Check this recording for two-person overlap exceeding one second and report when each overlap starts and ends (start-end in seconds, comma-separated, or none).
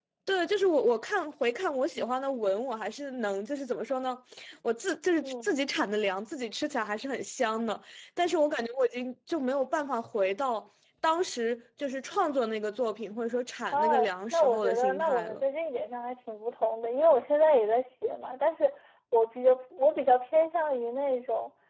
13.7-15.4